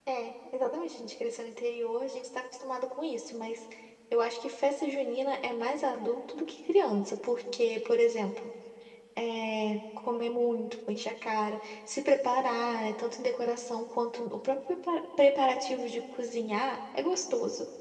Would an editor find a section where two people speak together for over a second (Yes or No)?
No